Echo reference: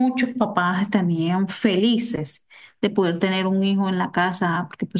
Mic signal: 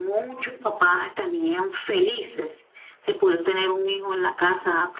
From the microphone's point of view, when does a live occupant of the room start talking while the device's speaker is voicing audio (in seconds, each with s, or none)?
none